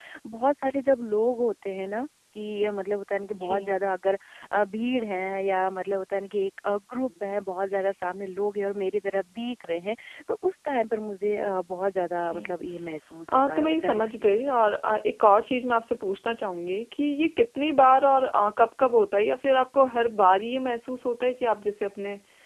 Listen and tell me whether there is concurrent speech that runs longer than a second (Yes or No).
Yes